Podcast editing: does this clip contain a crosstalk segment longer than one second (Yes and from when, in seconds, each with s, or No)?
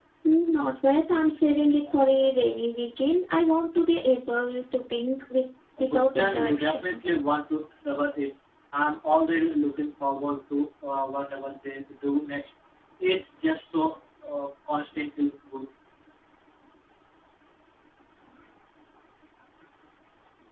Yes, from 5.7 s